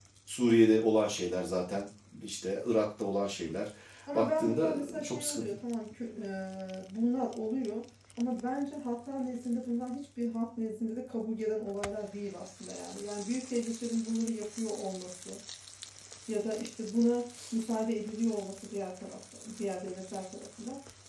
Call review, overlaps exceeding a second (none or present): present